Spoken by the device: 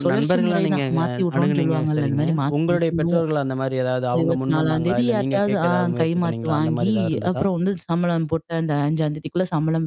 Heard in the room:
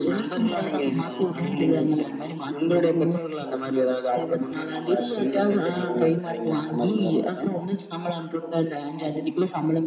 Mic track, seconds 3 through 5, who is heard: echo only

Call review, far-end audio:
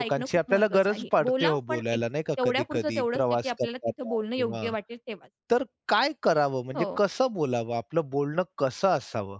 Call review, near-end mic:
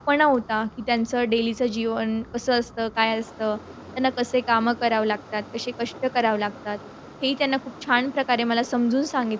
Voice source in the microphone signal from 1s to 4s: user only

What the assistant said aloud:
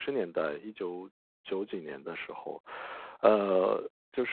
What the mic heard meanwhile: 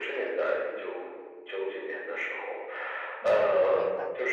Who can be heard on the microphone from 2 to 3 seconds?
echo only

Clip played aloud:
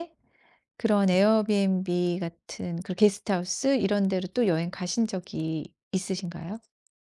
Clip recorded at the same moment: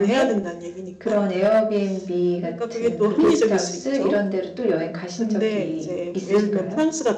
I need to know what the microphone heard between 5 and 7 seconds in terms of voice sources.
both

